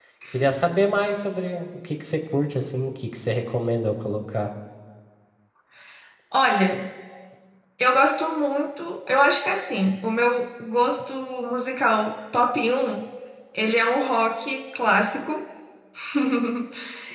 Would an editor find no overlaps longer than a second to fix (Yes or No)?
Yes